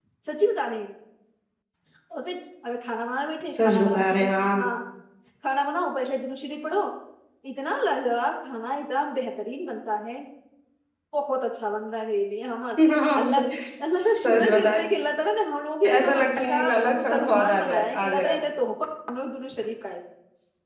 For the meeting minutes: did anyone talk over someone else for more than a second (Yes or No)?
Yes